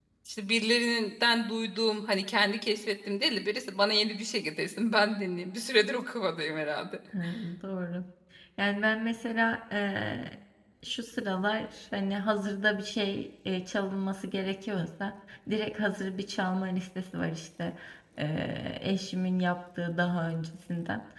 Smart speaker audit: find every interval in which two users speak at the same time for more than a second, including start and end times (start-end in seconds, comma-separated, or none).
none